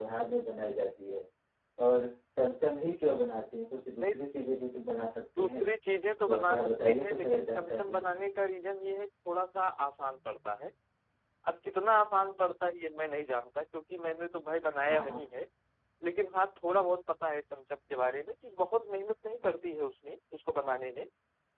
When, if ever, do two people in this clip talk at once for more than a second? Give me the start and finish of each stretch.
6.3-8.2

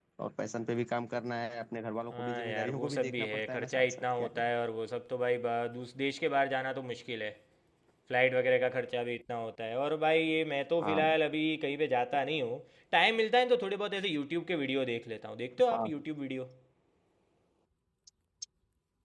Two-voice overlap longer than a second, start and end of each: 2.1-4.5

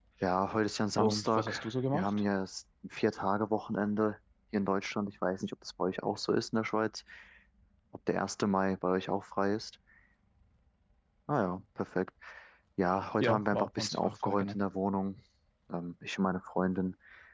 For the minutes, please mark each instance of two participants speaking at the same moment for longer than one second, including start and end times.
1.0-2.2, 13.2-14.6

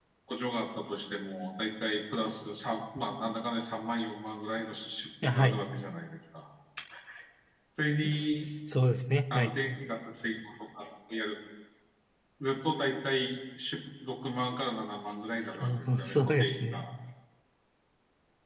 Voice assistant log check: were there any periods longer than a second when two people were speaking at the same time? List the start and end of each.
15.0-16.9

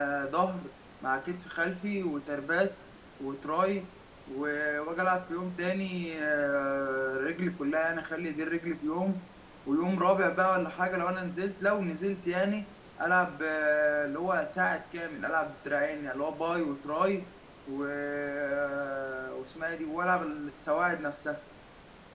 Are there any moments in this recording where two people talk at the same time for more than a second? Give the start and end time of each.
none

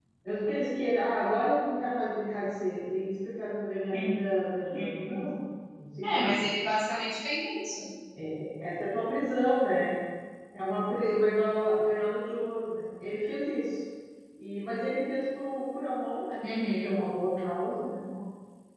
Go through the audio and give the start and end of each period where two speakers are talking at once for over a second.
none

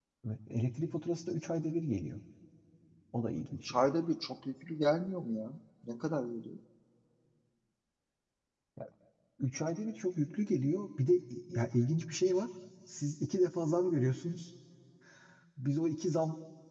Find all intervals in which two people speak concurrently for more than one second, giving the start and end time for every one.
none

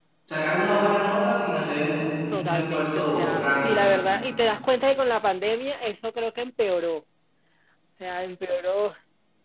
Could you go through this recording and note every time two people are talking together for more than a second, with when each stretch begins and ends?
2.3-3.8

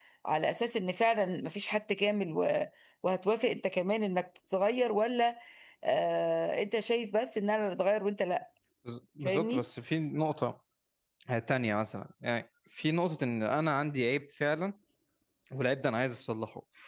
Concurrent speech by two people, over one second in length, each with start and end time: none

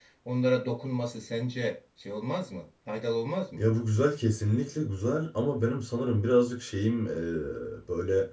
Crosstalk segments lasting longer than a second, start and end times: none

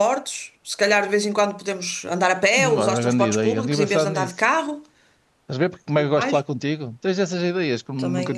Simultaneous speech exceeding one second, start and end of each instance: 2.6-4.3

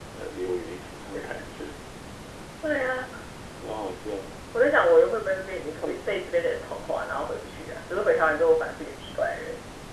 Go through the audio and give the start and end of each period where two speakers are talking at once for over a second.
none

